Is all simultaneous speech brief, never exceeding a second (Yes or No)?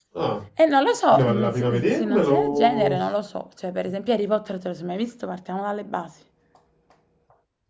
No